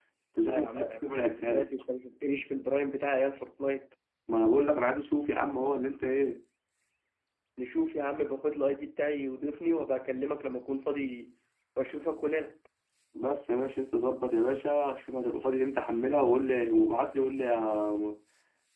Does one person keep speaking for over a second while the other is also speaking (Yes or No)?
Yes